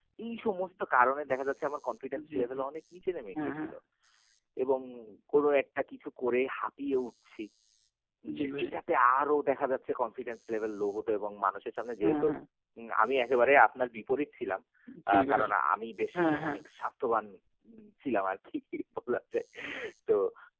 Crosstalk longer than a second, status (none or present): none